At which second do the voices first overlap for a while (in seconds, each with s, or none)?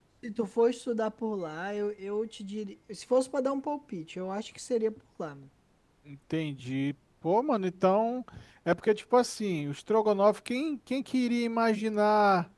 none